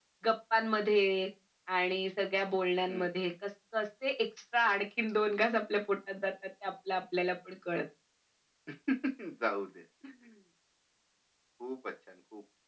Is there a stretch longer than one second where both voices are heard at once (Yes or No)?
No